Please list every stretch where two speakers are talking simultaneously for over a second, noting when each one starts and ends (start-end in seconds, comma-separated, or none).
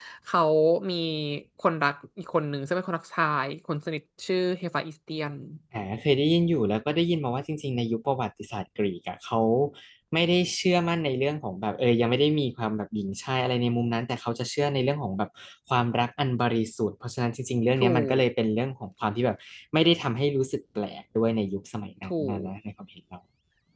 none